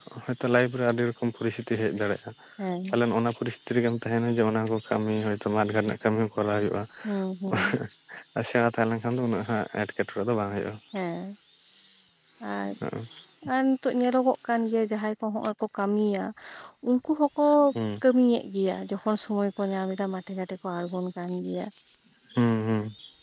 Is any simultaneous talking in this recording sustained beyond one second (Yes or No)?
No